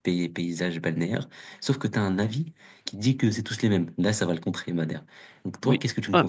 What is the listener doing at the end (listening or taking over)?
taking over